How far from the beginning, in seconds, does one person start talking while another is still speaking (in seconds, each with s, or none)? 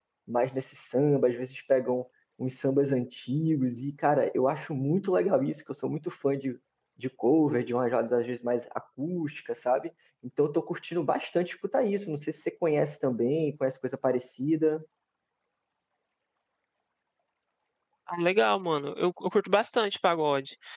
none